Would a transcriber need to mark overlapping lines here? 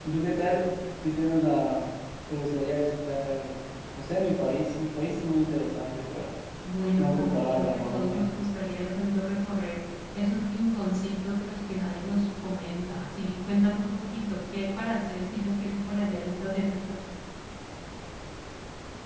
Yes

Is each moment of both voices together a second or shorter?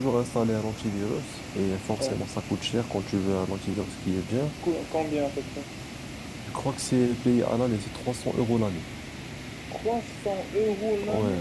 Yes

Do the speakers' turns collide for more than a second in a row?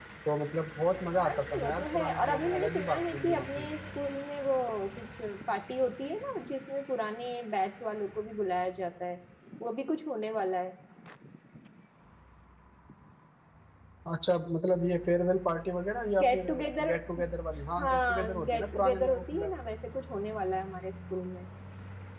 Yes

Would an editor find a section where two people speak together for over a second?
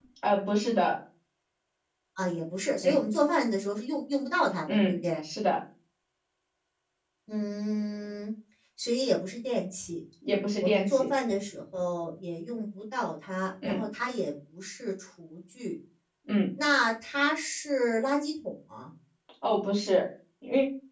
No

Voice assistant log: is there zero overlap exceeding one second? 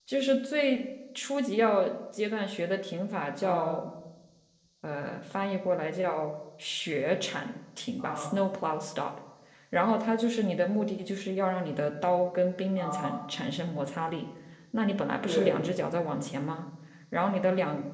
Yes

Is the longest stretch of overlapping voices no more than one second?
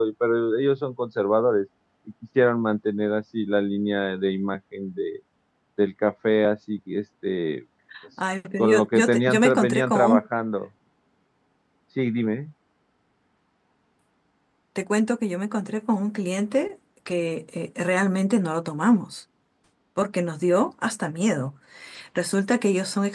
No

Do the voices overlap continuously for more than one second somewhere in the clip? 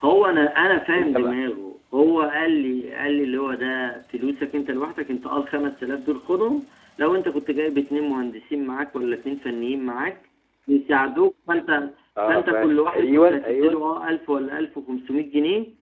Yes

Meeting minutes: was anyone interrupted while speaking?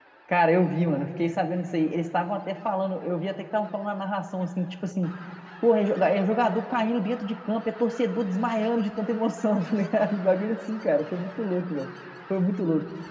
No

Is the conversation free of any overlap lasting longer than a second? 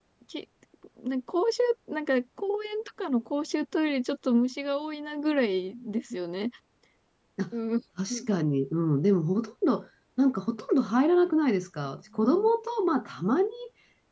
Yes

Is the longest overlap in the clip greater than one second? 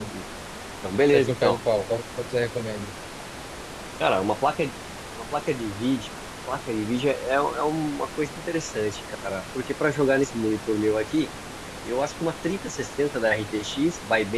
No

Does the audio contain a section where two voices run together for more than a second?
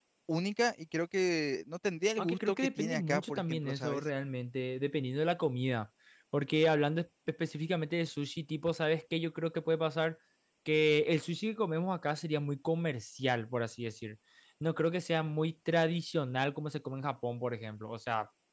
Yes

